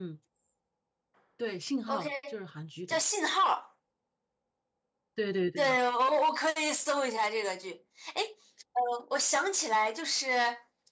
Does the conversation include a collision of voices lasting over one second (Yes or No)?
No